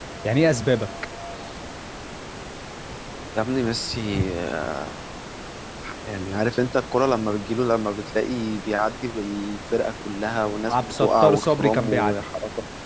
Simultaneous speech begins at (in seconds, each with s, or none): 10.7 s